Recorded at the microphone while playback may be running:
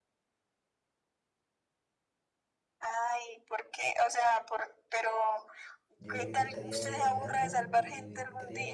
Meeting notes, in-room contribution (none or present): present